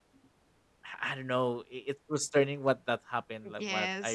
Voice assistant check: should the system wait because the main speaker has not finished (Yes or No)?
No